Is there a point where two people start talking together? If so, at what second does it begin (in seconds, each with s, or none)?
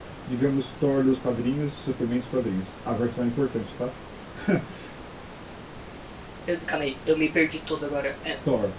none